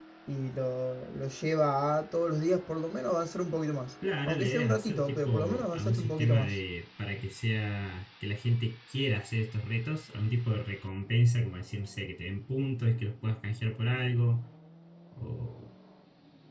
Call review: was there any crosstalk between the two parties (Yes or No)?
Yes